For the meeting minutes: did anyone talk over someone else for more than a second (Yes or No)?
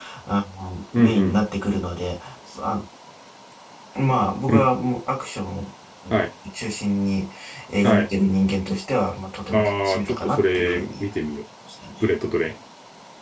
Yes